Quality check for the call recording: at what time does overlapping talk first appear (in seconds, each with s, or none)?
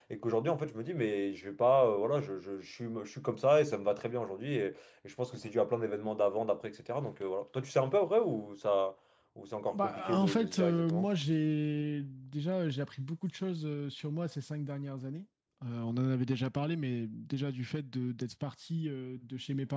9.7 s